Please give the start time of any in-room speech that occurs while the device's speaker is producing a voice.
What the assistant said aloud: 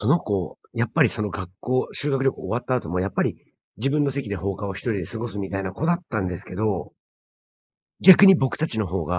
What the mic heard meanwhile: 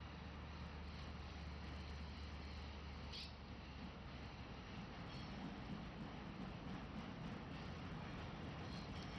none

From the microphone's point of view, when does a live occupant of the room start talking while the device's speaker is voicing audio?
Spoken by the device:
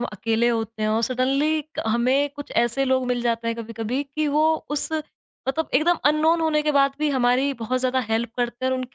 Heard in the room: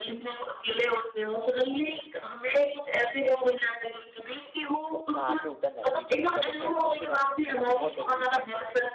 5.1 s

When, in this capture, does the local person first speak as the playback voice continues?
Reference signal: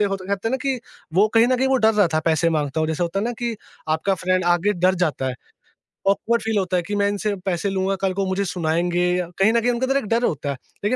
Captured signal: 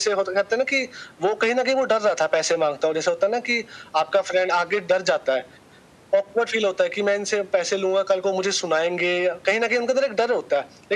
none

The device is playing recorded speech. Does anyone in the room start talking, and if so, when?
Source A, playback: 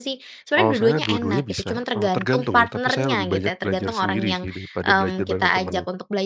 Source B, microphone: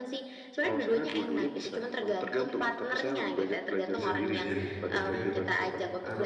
3.9 s

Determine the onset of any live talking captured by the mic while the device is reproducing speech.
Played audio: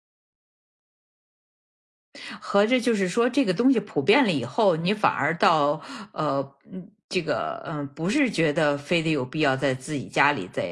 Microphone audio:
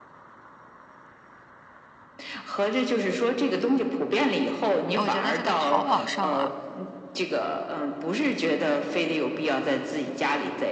4.9 s

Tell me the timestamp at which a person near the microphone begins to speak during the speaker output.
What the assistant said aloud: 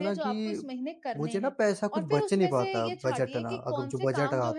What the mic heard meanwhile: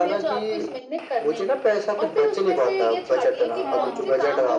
3.6 s

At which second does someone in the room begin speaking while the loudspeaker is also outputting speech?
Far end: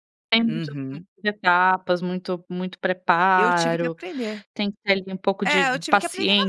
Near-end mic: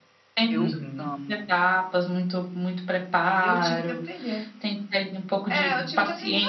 0.5 s

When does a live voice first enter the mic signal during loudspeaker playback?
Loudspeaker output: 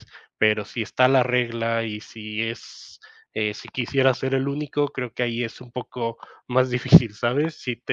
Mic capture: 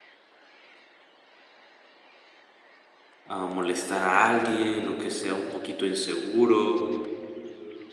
3.2 s

